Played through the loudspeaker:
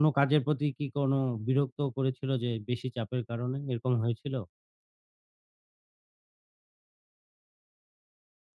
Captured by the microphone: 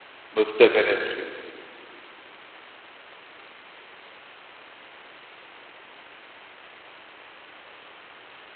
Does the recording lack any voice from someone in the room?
No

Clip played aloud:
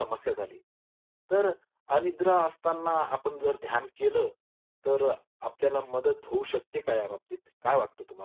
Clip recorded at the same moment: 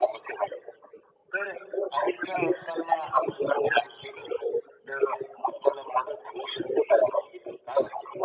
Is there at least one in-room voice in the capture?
No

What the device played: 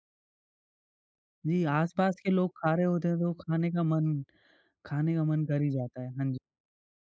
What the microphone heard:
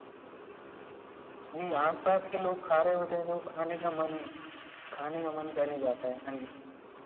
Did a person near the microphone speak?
No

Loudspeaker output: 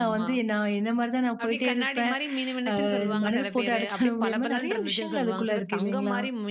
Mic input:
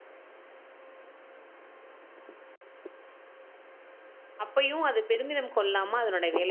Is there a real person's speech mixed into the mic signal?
Yes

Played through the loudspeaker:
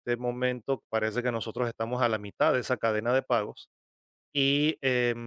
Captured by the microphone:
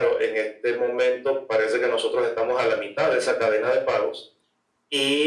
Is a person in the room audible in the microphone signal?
No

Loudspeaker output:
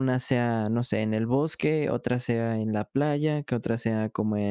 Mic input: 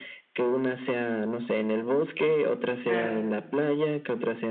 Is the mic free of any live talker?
No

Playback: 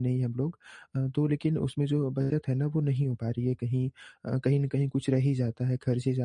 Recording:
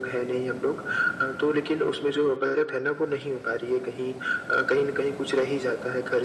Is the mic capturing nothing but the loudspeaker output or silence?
Yes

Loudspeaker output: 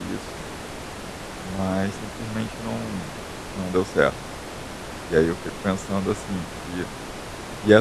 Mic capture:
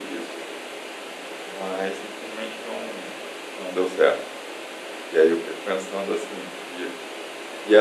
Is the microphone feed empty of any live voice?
Yes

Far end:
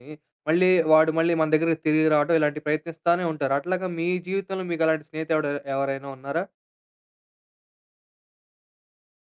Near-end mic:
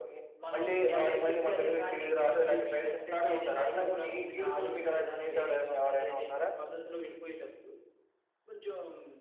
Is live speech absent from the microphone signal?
No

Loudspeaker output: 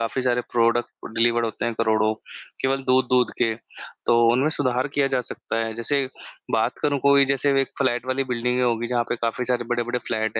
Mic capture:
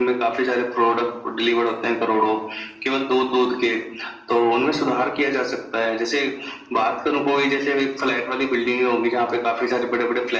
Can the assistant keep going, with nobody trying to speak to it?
Yes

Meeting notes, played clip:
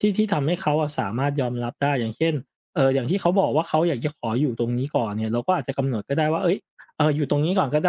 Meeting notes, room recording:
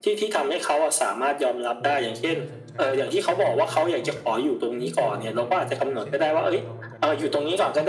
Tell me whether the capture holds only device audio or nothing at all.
No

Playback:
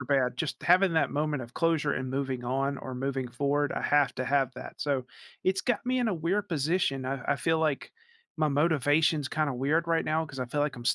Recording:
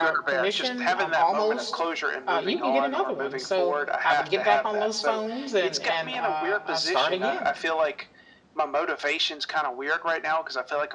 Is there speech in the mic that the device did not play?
Yes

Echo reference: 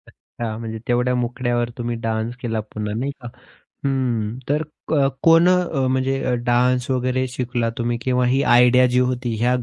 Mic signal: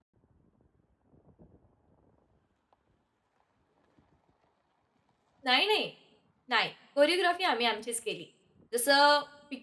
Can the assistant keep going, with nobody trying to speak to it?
No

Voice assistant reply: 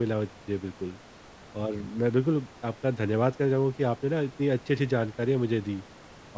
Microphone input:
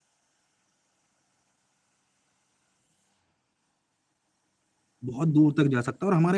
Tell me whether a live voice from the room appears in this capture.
Yes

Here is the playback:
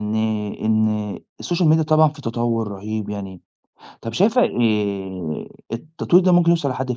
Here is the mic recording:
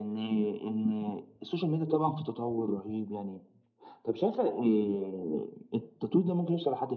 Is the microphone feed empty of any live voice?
Yes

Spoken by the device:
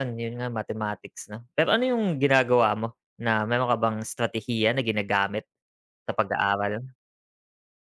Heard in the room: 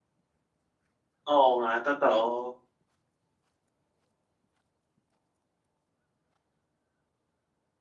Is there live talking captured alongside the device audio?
Yes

